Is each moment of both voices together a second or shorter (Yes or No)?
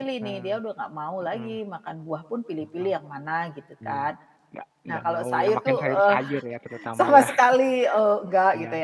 No